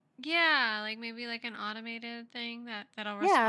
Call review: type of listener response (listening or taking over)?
taking over